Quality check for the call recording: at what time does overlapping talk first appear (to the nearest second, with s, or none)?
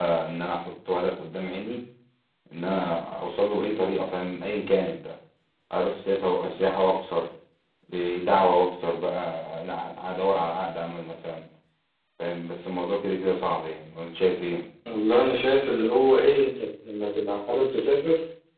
none